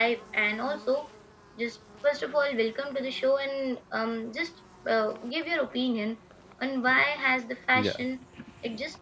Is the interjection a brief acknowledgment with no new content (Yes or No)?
Yes